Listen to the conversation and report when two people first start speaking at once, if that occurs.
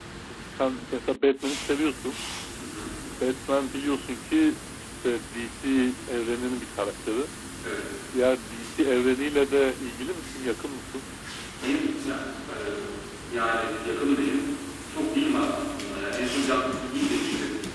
none

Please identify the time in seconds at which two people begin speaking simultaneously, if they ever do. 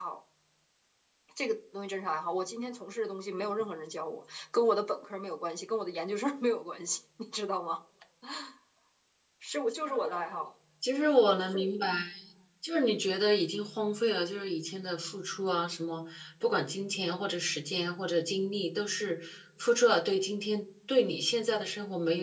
none

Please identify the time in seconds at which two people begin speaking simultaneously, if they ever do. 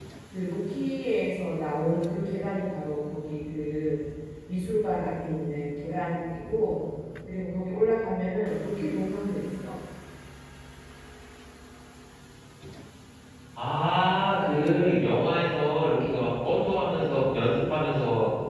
none

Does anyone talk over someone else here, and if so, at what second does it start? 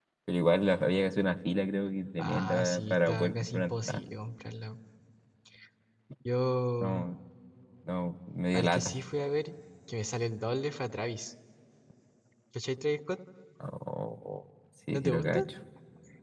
2.2 s

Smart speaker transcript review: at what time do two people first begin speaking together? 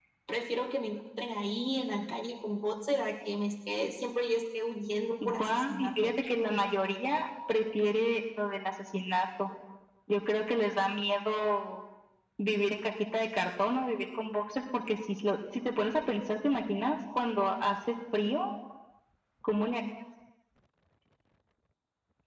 5.2 s

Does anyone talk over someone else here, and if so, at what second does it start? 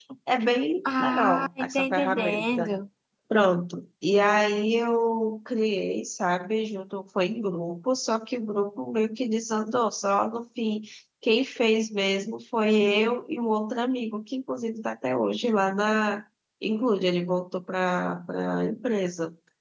0.8 s

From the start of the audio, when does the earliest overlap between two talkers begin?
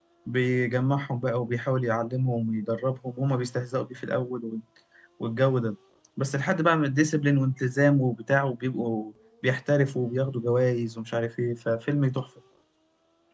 none

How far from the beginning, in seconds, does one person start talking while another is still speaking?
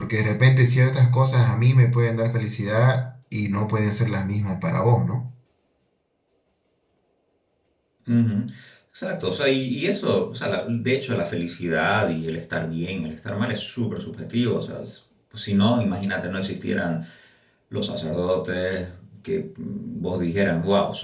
none

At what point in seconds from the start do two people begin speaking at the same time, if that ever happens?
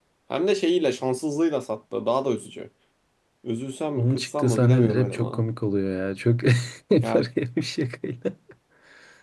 3.9 s

